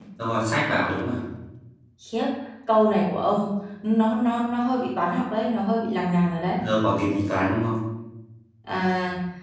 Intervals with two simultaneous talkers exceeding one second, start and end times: none

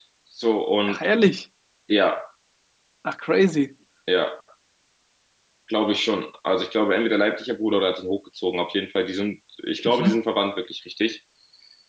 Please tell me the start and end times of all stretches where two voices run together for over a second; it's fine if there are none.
none

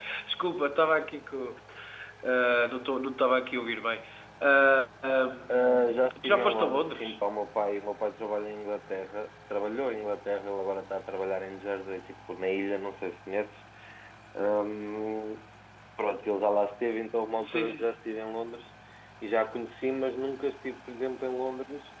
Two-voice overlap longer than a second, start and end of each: 5.5-7.2

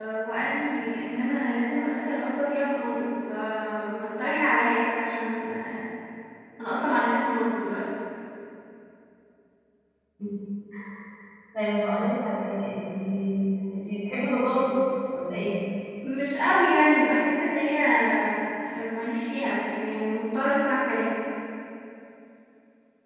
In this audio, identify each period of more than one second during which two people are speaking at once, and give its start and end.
none

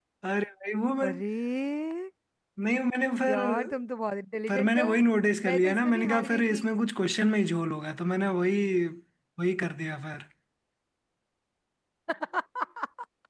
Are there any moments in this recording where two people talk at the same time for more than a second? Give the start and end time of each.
5.4-6.6

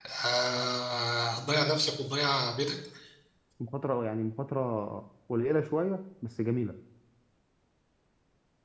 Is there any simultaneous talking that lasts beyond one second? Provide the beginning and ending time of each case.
none

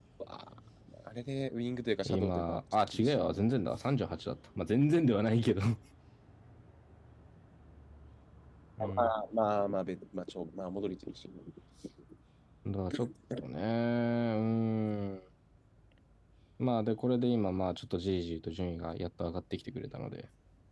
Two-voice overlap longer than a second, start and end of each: 2.0-3.4

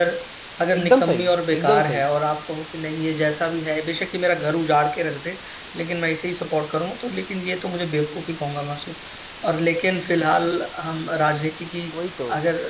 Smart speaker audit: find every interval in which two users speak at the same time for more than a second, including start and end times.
0.8-2.0

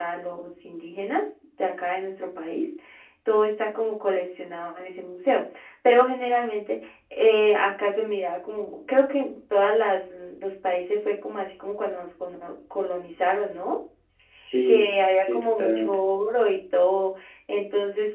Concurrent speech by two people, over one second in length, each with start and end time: 14.7-15.9

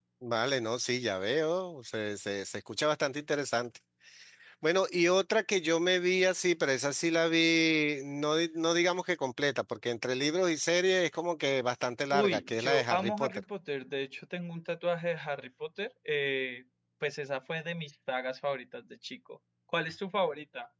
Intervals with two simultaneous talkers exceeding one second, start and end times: 12.1-13.4

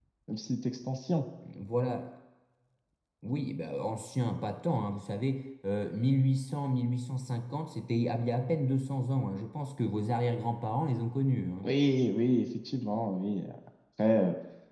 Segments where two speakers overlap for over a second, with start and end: none

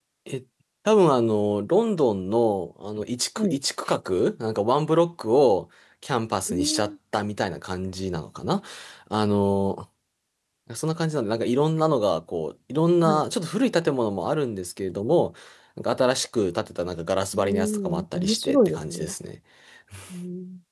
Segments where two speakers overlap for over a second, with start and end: 17.3-19.1

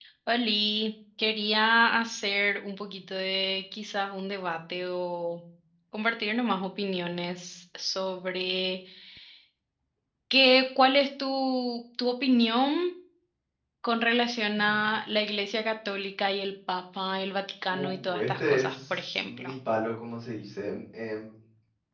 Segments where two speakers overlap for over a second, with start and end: 17.7-19.5

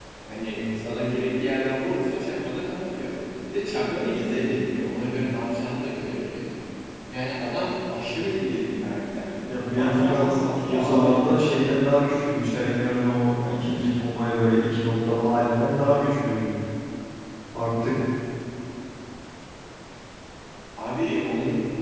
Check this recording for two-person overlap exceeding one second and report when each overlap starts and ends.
9.7-11.6

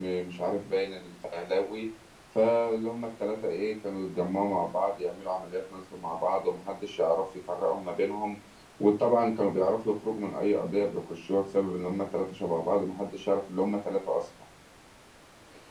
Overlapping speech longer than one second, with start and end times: none

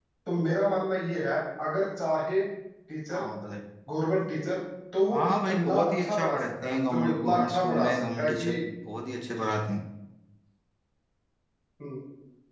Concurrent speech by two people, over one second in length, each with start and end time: 5.1-8.5

